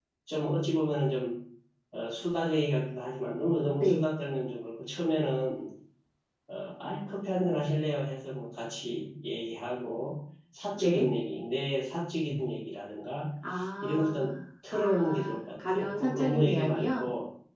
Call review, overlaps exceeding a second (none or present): present